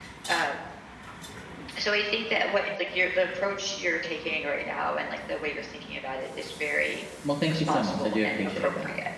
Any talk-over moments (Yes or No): Yes